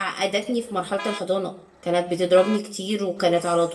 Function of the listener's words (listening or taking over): listening